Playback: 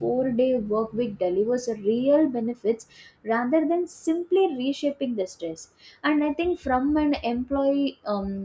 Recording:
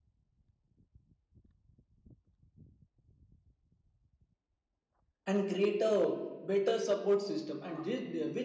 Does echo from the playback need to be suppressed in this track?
No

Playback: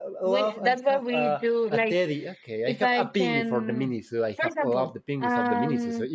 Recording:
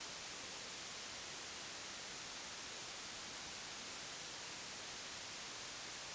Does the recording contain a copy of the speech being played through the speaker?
No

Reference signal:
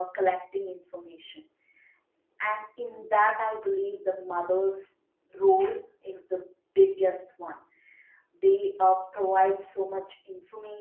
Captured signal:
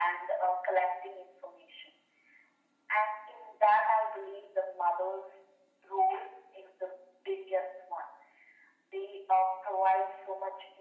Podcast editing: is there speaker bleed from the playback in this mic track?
Yes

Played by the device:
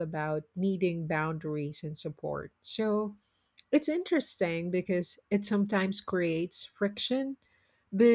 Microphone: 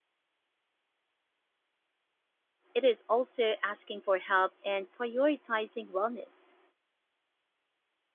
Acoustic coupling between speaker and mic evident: No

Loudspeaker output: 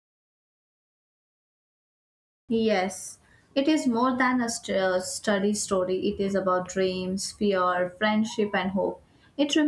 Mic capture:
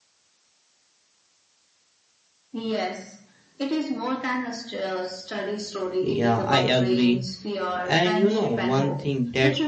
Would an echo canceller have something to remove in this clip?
Yes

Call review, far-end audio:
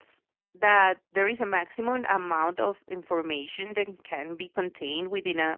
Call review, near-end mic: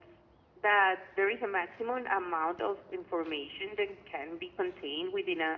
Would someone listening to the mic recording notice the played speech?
Yes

